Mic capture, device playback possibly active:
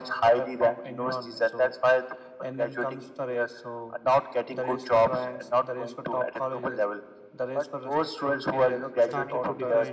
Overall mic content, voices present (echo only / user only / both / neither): both